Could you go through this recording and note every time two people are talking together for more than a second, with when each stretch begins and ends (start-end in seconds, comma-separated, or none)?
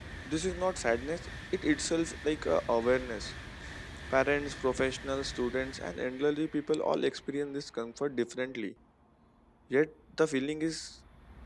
none